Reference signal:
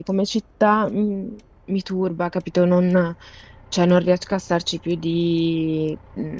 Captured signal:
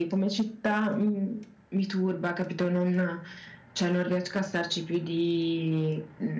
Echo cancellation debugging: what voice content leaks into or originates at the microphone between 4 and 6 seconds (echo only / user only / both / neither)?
echo only